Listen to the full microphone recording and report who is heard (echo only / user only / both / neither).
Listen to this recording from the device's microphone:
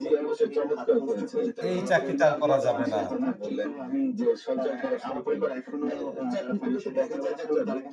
both